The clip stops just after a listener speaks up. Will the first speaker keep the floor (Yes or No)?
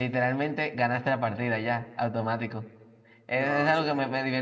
Yes